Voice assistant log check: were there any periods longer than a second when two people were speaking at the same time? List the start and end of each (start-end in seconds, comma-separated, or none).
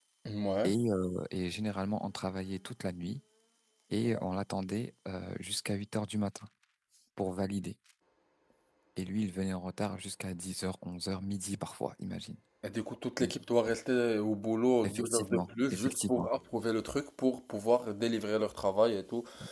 14.8-16.3